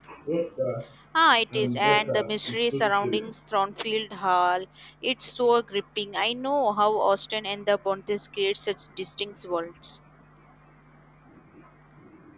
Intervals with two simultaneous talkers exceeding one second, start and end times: 1.5-3.3

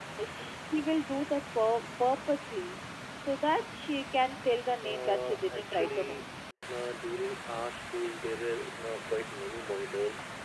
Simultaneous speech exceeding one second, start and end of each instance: 4.8-6.2

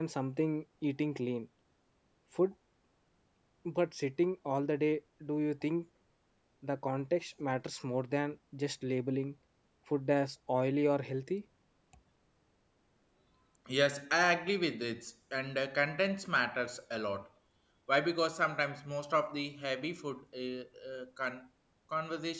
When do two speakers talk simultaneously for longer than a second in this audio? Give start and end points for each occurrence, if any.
none

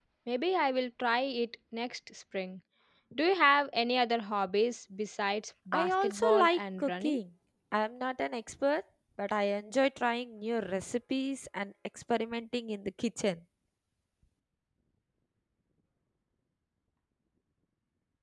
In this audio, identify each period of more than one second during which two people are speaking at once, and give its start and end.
5.7-7.2

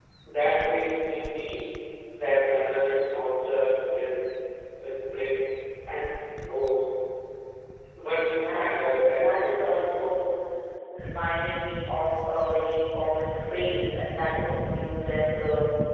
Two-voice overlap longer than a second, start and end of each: 8.4-10.0

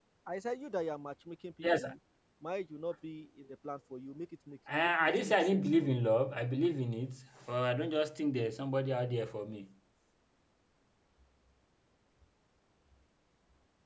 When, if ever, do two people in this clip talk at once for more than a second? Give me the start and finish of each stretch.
4.8-6.1

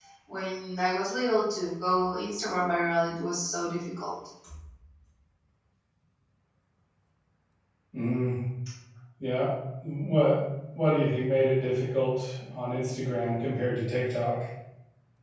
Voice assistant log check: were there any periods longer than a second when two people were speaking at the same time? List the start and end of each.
none

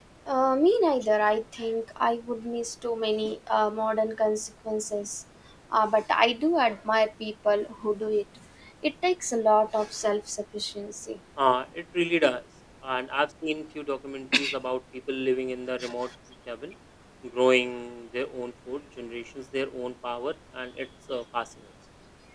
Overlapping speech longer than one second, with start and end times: none

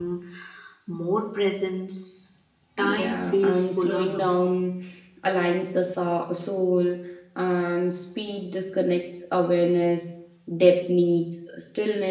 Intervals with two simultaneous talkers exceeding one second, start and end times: 2.8-4.2

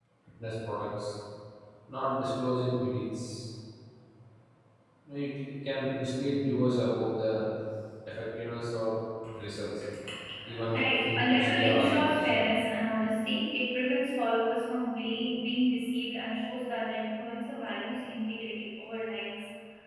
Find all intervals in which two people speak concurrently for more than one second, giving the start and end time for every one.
10.7-12.5

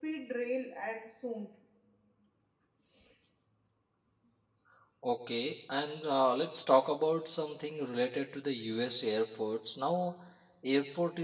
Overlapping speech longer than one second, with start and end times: none

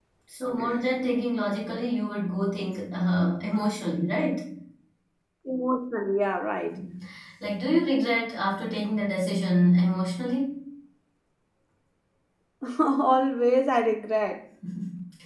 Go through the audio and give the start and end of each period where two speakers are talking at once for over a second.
none

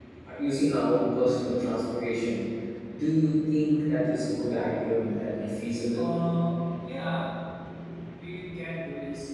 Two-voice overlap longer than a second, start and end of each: none

